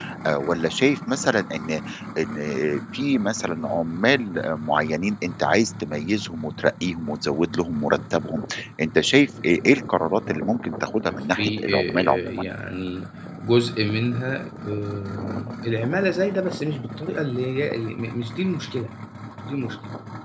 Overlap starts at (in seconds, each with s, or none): 11.1 s